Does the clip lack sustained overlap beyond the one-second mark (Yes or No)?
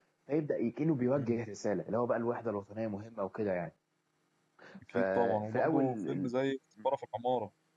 No